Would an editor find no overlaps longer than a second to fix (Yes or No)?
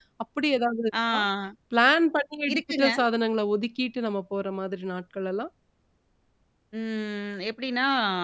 Yes